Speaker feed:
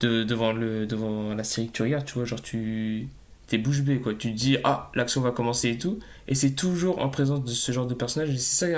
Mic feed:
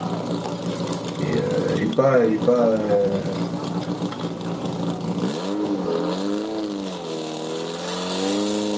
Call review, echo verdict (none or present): none